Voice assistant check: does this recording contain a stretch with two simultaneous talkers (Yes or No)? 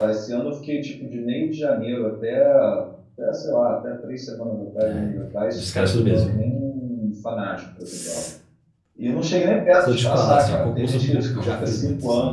Yes